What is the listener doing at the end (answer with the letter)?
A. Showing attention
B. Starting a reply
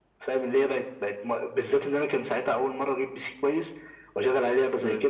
A